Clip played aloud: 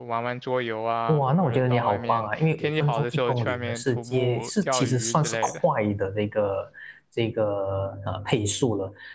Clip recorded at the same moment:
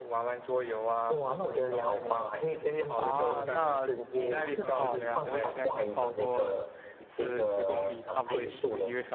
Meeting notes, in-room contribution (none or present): present